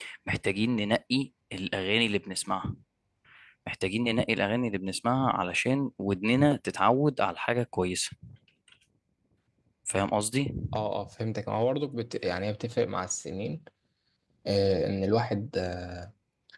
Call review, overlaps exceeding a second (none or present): none